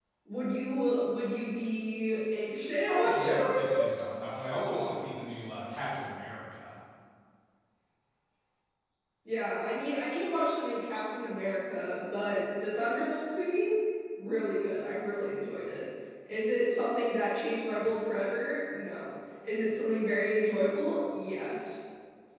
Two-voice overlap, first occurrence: 2.8 s

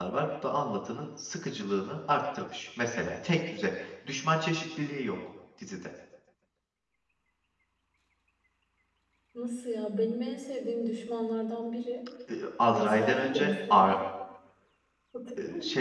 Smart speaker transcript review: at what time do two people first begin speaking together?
12.7 s

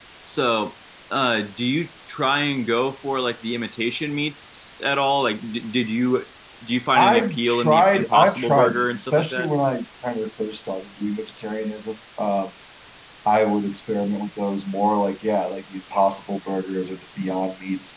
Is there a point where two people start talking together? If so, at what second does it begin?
7.0 s

